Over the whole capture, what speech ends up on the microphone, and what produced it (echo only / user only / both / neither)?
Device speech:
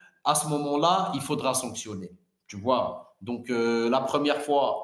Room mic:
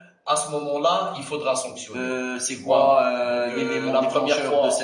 both